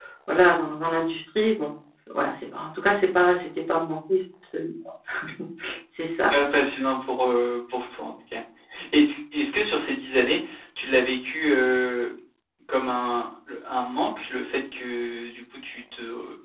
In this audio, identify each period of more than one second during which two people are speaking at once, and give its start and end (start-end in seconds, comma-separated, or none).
none